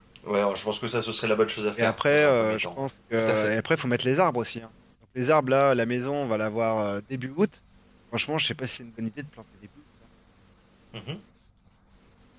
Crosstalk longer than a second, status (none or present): present